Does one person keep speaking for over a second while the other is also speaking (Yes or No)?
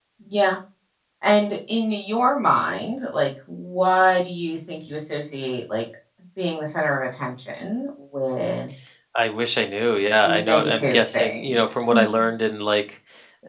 Yes